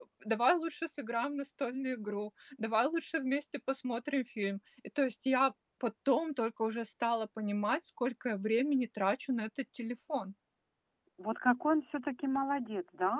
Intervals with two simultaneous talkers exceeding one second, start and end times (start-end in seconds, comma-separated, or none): none